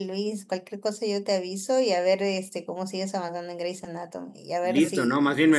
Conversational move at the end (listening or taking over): taking over